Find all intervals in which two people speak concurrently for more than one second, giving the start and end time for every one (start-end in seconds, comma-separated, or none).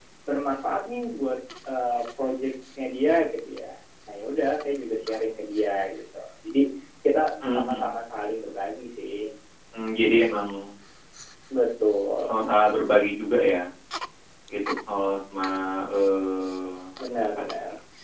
none